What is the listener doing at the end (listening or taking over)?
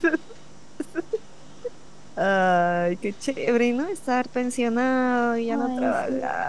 listening